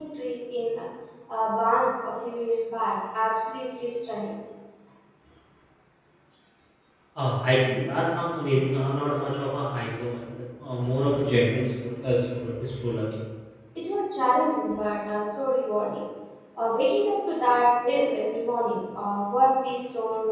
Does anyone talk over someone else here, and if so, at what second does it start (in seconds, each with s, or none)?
none